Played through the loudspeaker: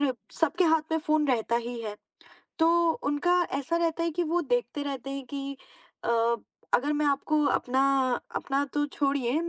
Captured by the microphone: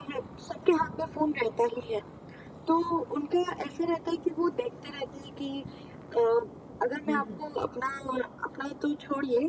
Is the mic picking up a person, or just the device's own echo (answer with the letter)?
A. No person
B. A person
B